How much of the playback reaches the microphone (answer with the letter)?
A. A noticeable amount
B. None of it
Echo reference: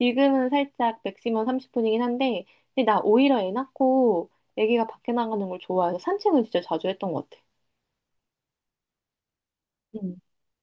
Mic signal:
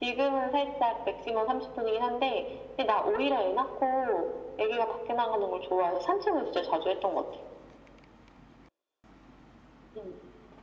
A